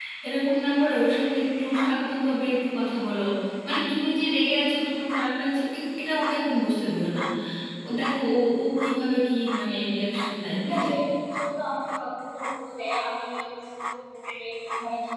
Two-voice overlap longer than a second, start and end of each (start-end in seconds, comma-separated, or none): none